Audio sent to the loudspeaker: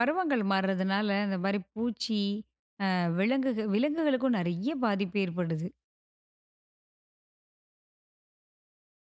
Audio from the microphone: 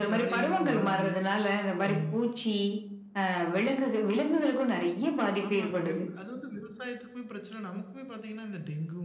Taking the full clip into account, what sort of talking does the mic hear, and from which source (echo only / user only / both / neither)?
both